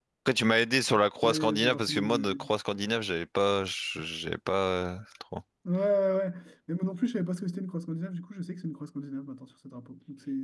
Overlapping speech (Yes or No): Yes